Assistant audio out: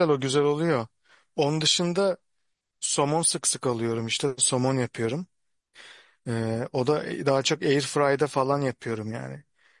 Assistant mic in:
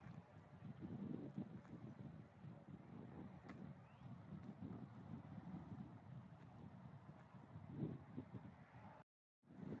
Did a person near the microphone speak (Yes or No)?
No